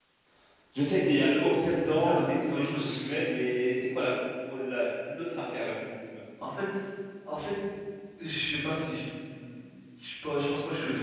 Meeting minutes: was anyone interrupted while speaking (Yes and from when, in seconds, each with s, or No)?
Yes, from 1.8 s